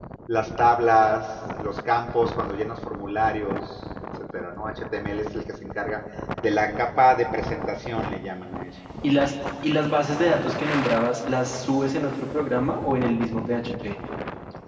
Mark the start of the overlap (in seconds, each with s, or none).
none